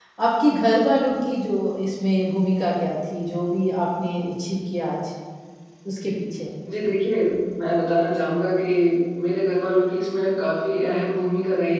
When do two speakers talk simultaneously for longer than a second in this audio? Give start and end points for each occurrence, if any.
none

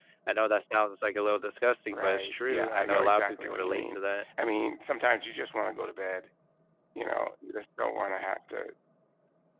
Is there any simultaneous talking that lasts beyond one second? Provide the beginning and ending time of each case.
1.9-4.0

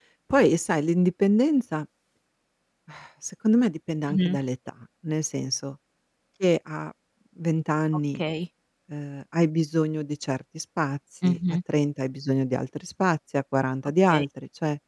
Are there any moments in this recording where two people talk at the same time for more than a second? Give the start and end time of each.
none

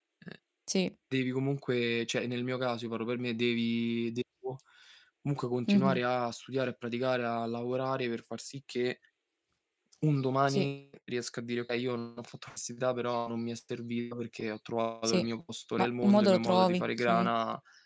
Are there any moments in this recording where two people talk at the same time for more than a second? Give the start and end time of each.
15.8-17.3

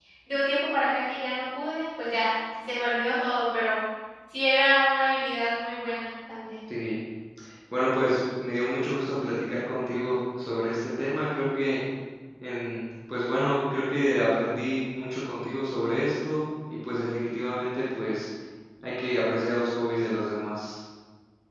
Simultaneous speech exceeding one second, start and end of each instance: none

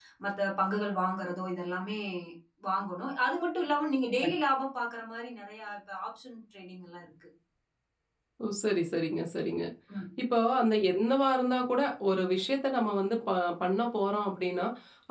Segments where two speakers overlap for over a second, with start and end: none

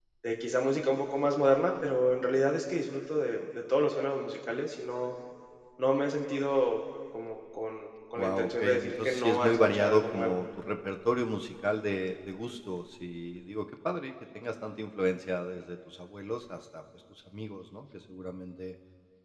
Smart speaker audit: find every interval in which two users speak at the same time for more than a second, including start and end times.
8.2-10.4

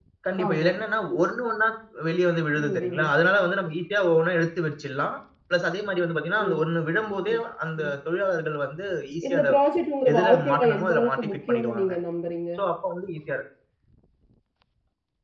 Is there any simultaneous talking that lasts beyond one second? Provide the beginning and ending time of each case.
10.1-11.9

